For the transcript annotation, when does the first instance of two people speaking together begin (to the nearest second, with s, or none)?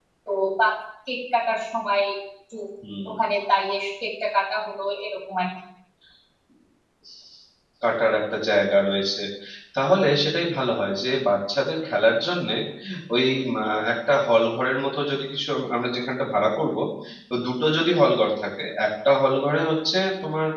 none